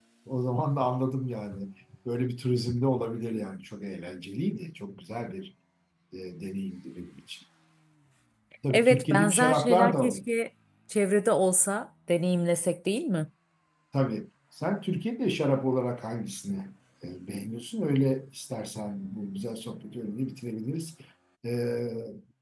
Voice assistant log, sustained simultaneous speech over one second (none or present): present